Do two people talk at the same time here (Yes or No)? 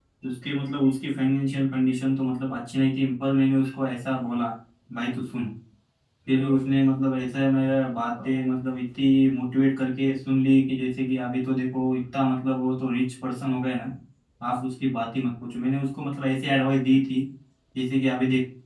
No